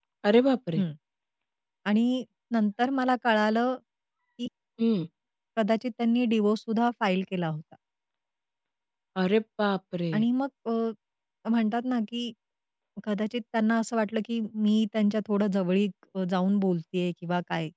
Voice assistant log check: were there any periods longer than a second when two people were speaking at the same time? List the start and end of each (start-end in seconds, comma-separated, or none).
none